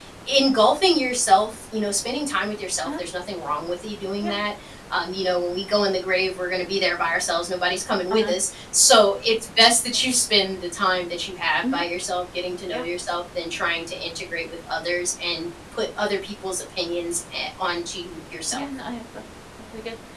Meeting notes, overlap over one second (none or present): none